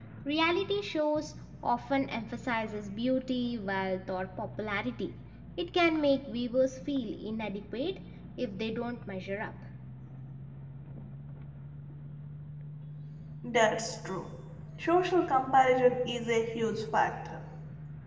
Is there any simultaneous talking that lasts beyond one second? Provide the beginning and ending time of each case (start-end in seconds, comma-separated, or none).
none